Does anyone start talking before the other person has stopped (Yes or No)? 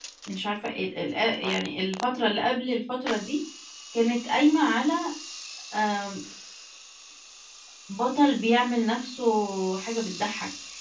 No